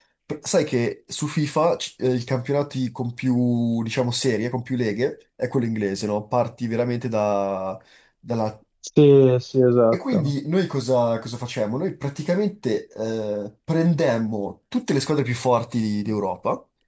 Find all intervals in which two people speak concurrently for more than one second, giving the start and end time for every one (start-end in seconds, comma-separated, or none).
none